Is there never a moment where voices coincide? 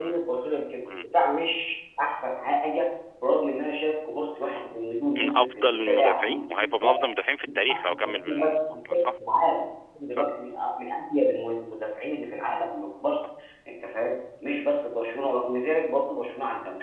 No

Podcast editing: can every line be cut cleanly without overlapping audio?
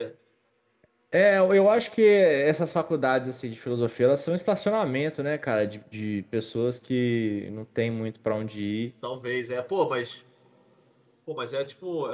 Yes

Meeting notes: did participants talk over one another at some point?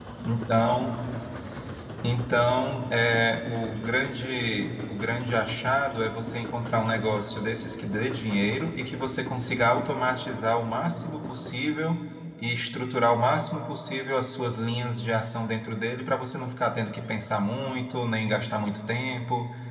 No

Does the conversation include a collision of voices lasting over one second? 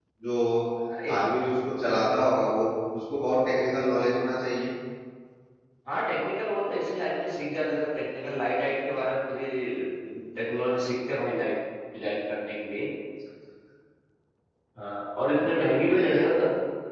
No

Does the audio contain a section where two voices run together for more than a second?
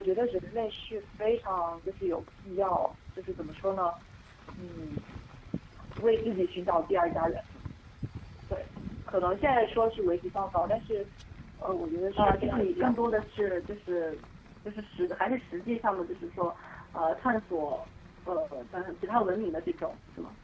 Yes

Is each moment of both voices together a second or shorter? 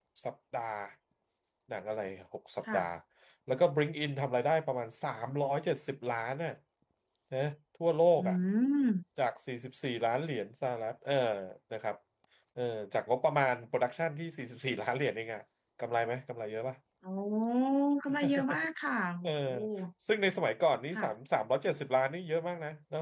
Yes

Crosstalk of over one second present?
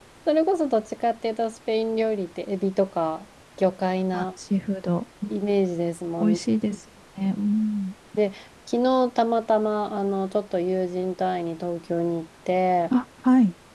No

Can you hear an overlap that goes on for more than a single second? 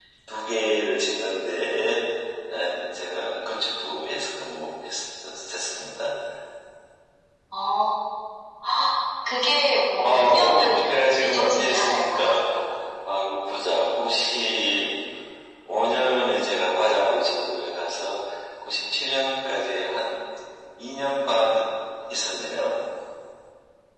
Yes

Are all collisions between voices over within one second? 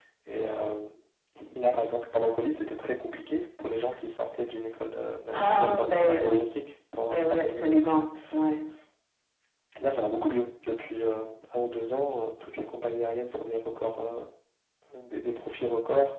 No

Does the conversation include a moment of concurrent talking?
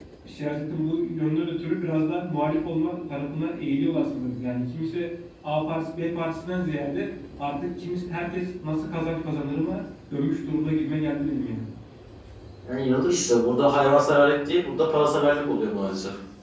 No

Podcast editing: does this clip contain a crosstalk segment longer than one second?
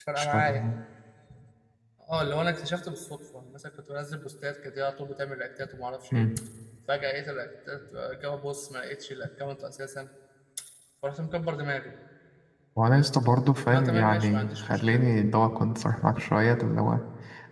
Yes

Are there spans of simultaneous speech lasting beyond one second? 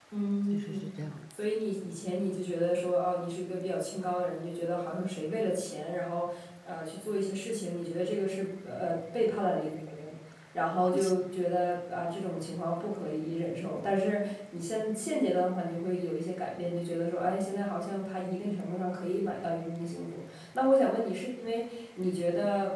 No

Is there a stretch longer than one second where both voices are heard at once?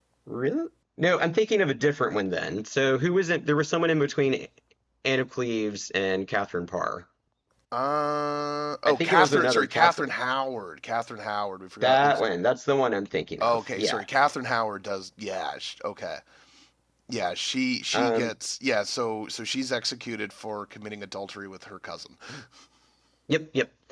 Yes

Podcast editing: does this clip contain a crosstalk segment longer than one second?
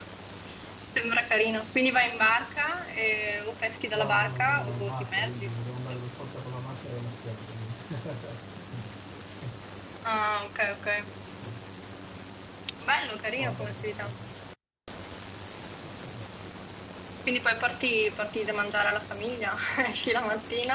Yes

